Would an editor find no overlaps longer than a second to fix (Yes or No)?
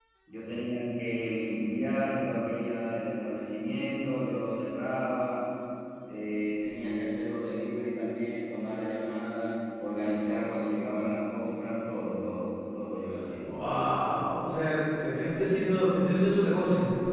Yes